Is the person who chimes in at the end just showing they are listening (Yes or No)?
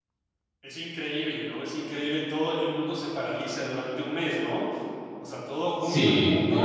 No